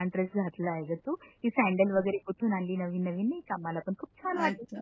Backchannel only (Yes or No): No